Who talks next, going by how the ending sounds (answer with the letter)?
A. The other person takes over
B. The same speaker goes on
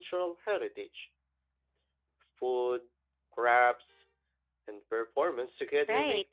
A